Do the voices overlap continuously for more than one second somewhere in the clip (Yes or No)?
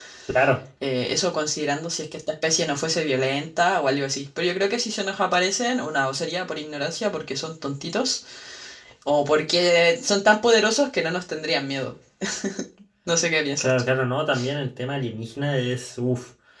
No